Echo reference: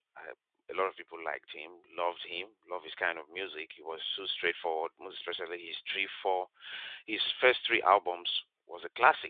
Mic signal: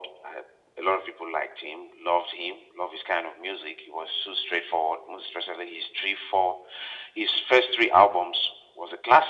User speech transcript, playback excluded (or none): none